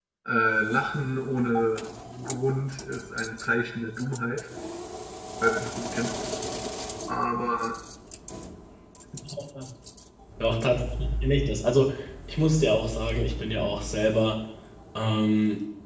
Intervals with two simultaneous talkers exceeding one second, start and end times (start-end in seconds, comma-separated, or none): none